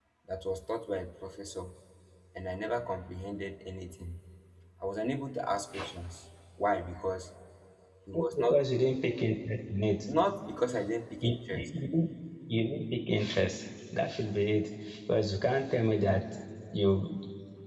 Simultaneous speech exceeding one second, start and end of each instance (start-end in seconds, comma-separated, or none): none